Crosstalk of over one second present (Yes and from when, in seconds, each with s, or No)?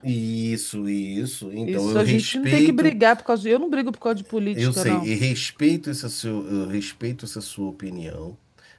Yes, from 1.6 s